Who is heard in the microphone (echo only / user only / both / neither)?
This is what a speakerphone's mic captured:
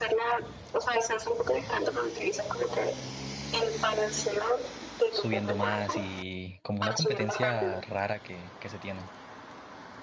both